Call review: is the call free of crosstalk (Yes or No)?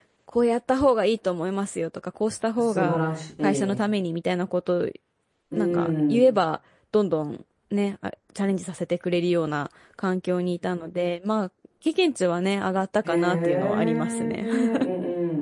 No